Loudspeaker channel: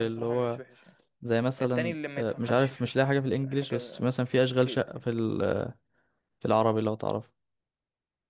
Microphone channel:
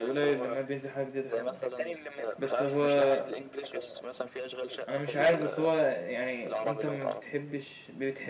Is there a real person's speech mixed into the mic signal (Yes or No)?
Yes